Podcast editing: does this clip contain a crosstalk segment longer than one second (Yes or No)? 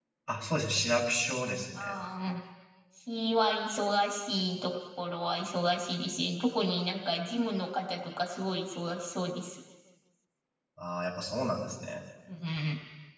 No